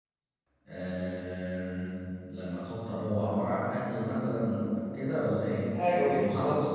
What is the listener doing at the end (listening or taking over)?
taking over